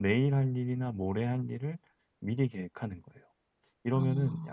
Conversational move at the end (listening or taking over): listening